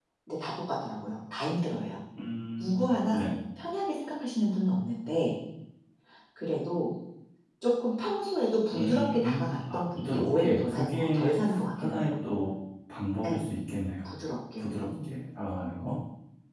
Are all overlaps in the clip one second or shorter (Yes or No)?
No